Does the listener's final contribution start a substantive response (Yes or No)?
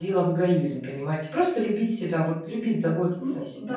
Yes